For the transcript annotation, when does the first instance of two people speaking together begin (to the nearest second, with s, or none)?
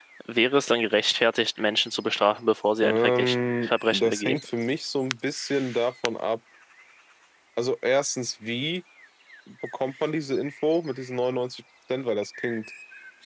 3 s